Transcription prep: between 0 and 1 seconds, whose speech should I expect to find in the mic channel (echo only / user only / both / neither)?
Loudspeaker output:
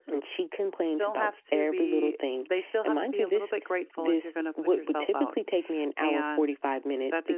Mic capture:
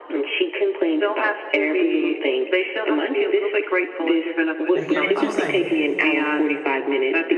echo only